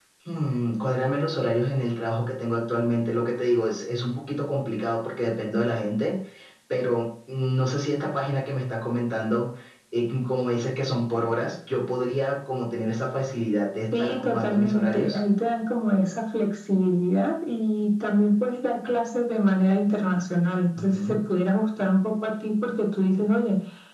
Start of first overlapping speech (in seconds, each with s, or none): 14.0 s